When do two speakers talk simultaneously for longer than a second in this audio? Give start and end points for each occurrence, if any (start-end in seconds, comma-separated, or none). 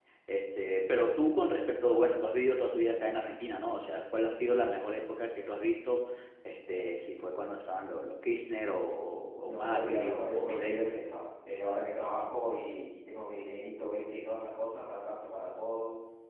9.4-10.8